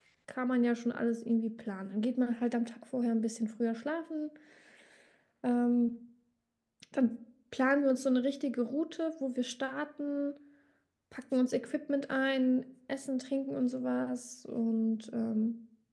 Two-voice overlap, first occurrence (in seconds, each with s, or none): none